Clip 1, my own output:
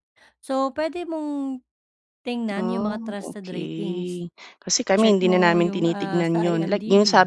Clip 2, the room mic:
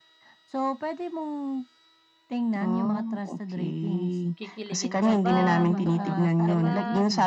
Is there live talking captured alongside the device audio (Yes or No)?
Yes